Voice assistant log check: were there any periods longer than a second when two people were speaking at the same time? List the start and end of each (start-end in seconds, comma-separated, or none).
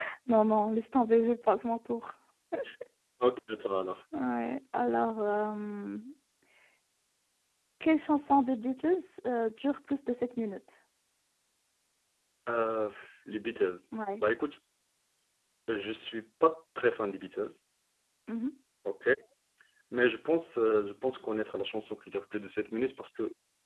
none